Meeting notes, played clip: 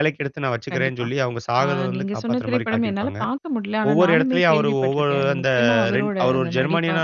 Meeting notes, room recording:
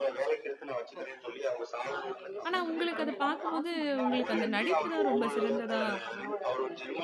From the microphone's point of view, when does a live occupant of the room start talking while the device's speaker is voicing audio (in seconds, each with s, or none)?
2.5 s